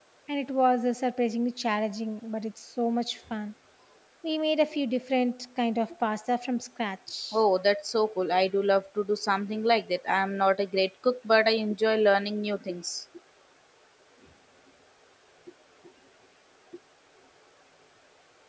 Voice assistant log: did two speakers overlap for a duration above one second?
No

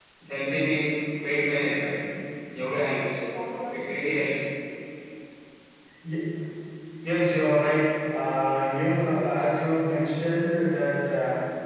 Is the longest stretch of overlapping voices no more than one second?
Yes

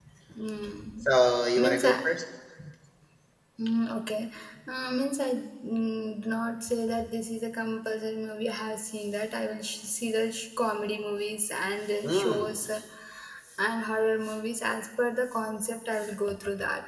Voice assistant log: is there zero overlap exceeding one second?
Yes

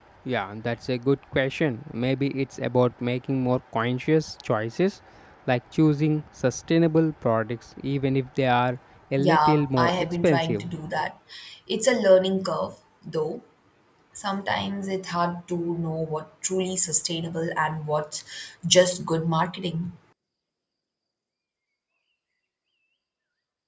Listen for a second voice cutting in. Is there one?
Yes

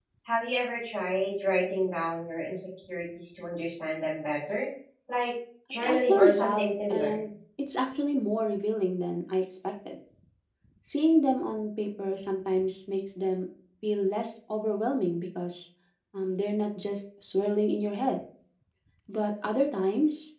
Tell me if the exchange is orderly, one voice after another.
No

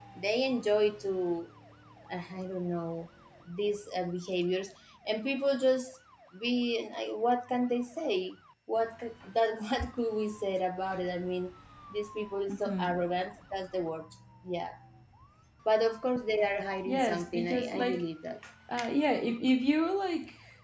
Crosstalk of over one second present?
Yes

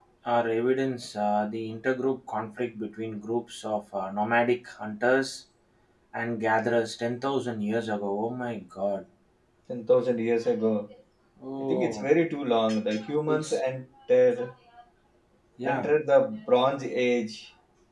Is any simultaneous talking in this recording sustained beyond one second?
No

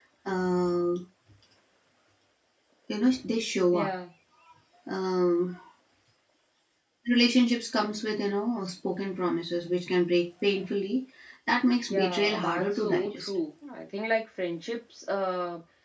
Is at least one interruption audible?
Yes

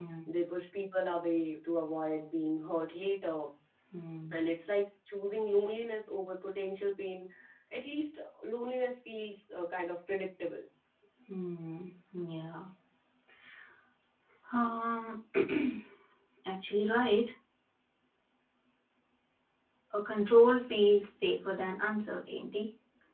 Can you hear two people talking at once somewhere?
No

